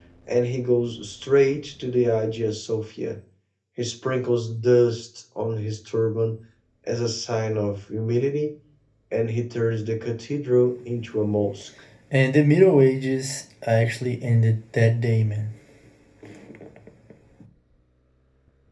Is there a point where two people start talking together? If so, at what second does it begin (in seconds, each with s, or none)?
none